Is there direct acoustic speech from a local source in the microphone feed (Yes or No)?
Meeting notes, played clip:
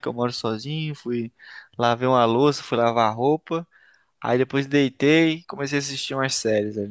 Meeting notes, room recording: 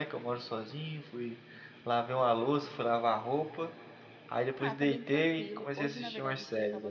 Yes